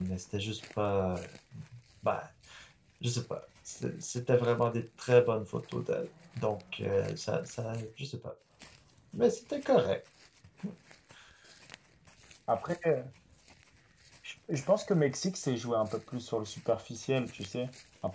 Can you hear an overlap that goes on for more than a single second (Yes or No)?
No